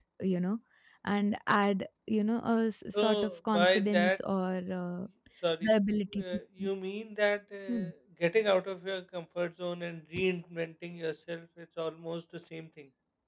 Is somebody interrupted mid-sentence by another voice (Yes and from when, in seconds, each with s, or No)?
Yes, from 3.0 s